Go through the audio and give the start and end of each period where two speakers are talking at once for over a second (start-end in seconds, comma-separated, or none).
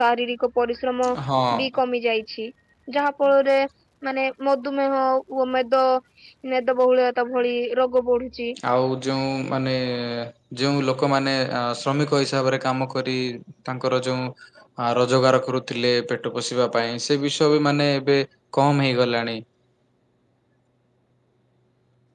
none